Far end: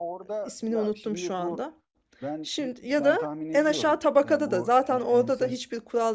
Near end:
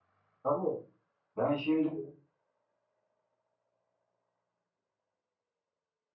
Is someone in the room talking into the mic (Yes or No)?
Yes